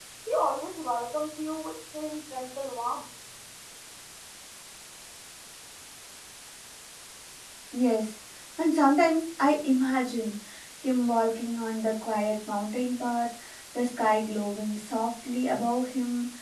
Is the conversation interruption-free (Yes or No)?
Yes